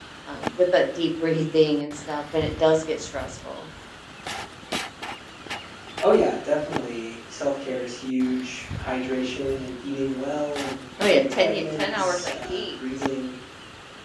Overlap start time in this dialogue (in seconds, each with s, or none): 11.0 s